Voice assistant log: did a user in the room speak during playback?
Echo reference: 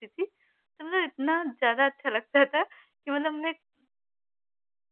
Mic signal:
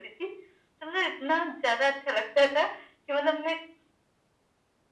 No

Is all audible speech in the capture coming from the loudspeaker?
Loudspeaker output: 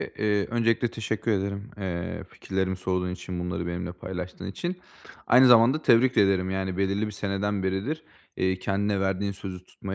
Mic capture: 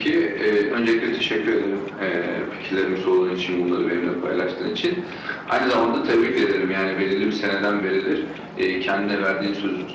Yes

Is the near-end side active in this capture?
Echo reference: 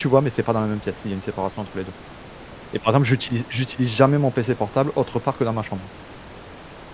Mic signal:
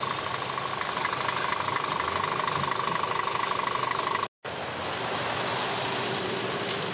No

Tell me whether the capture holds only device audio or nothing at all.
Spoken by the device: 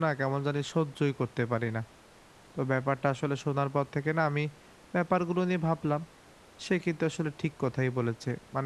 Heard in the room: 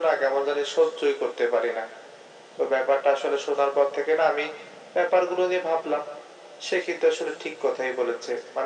Yes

